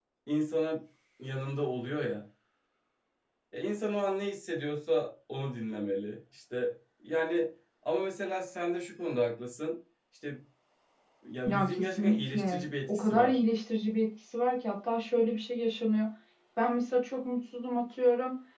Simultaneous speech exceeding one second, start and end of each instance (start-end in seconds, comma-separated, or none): 11.5-13.4